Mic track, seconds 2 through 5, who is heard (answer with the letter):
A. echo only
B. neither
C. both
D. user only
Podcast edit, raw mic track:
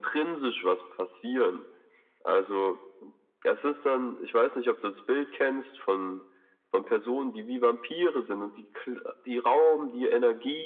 A